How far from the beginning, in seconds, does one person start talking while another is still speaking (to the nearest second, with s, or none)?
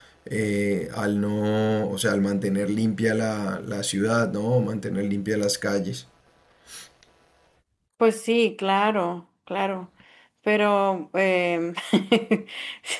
none